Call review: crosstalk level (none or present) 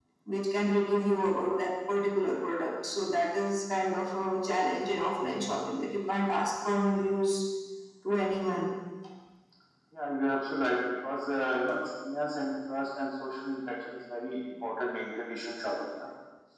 none